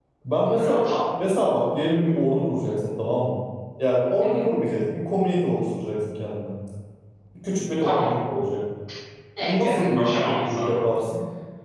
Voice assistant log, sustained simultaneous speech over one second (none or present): present